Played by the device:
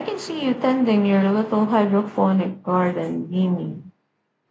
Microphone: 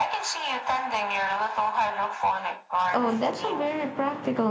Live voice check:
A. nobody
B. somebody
B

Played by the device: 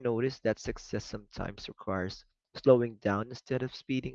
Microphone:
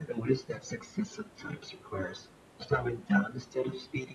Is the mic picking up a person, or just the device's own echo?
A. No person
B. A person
A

